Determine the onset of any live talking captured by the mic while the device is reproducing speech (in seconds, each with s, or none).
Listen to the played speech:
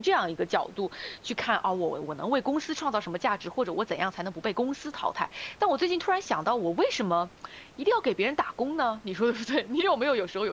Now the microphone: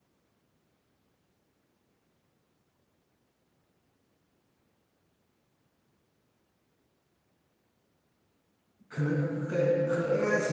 8.9 s